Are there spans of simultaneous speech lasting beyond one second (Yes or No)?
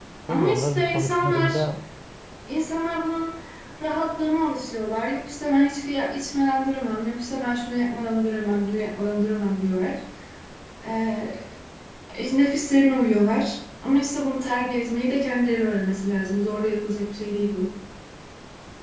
Yes